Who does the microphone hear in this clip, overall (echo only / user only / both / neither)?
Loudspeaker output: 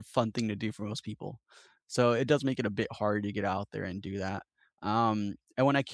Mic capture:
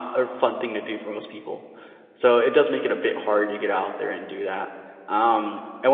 echo only